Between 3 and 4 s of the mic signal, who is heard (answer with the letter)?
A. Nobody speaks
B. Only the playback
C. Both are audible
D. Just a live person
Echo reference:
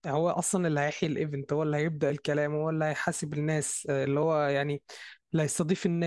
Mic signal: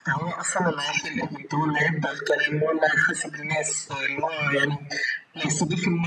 B